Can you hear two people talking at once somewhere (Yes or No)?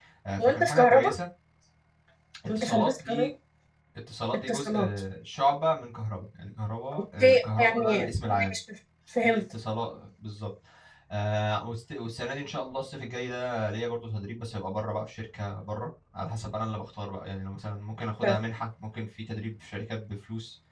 Yes